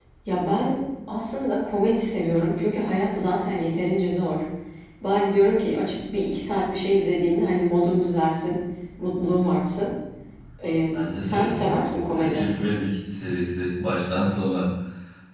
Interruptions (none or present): present